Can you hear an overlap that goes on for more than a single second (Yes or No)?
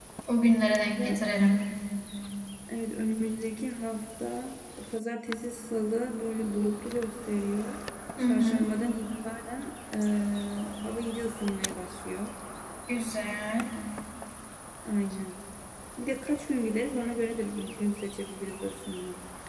No